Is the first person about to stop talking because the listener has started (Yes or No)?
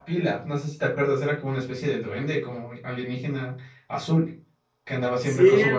Yes